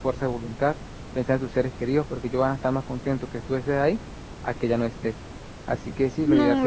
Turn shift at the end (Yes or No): Yes